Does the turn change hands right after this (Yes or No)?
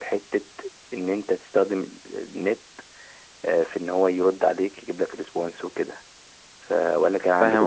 Yes